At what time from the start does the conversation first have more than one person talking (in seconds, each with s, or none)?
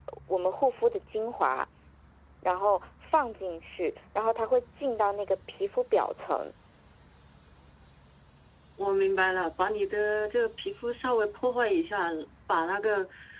none